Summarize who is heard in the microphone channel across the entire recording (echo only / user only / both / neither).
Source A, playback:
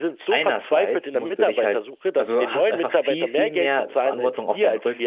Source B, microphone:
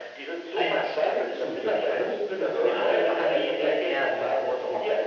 both